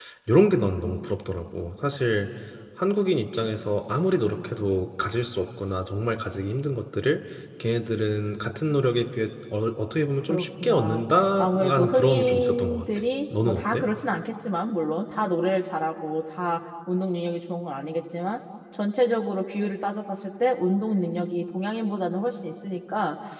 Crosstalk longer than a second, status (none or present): present